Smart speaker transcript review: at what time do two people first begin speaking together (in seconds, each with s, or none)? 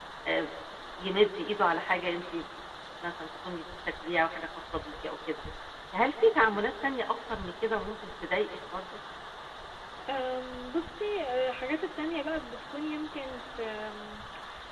none